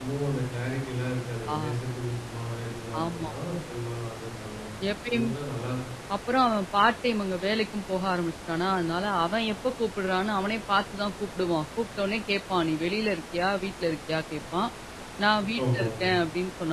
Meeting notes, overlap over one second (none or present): none